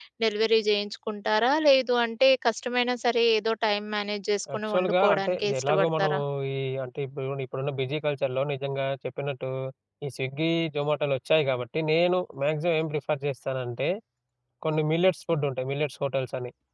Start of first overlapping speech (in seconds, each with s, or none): 4.5 s